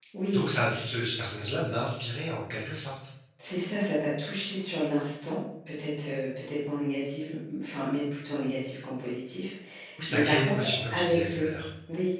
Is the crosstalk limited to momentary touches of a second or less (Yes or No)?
No